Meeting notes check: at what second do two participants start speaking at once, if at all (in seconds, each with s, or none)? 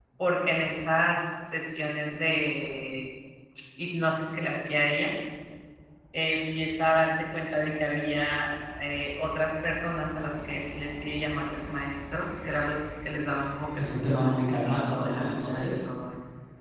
13.8 s